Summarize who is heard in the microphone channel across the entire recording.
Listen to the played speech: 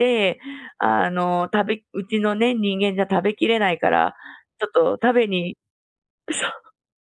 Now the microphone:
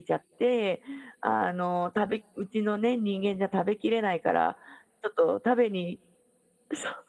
echo only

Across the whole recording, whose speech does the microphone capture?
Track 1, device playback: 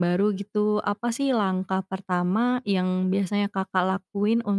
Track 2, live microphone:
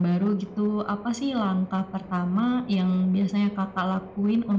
echo only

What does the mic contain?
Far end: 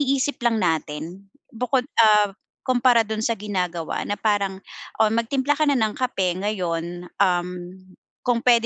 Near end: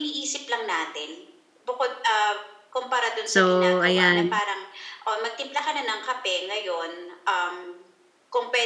both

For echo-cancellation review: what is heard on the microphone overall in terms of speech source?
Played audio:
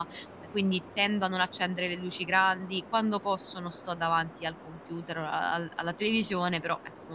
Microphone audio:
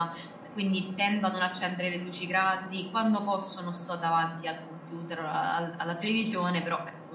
echo only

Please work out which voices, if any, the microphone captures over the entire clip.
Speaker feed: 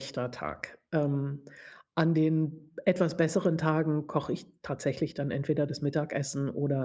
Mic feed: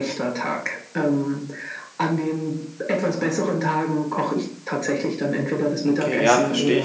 both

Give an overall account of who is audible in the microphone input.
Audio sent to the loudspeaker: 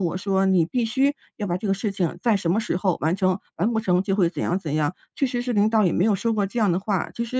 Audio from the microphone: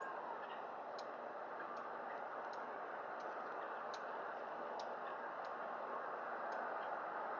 neither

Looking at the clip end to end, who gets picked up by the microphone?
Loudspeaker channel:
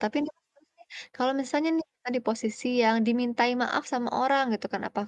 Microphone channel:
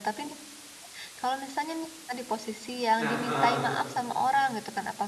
both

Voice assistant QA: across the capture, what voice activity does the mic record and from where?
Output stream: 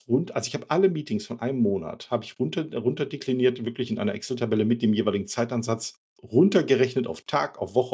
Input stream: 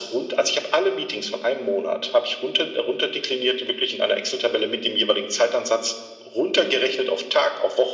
echo only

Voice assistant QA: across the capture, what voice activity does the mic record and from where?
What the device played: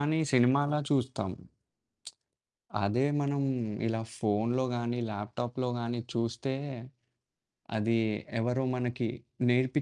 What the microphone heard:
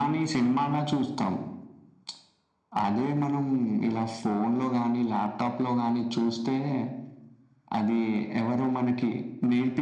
echo only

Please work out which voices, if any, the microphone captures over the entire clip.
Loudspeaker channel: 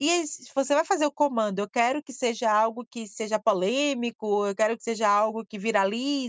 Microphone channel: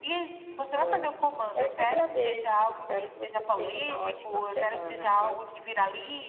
both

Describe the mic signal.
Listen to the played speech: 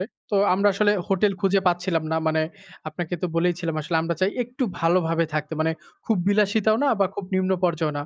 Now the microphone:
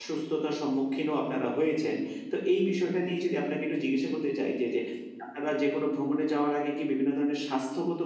user only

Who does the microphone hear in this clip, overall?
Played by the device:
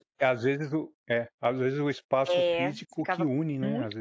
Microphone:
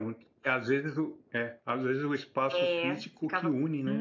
echo only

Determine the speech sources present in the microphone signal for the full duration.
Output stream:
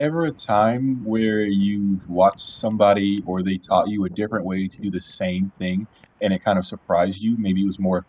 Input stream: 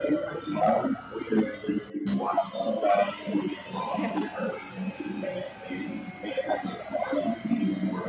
both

